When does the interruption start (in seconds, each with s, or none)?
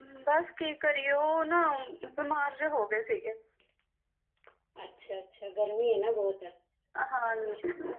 none